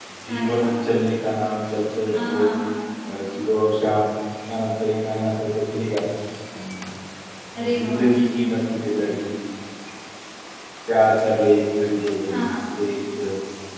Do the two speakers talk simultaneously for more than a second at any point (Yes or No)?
No